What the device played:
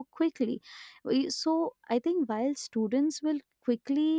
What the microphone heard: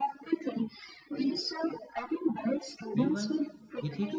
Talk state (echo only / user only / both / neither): both